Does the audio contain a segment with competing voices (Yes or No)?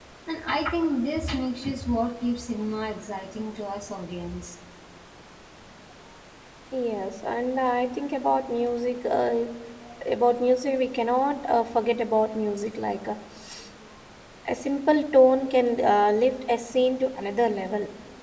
No